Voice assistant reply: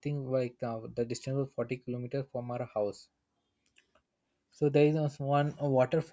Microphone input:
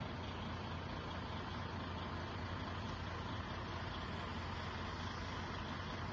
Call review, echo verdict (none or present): none